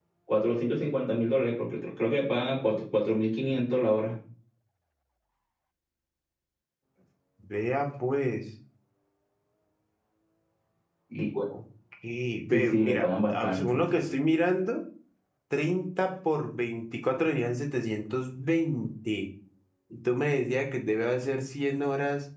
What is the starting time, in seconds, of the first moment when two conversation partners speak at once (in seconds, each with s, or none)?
12.5 s